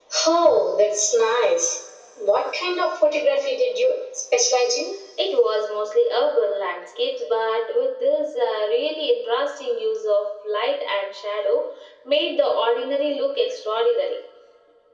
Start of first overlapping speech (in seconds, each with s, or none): none